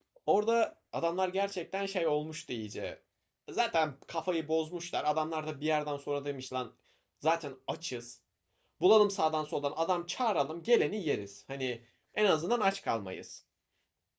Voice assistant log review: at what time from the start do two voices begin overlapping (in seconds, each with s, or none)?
none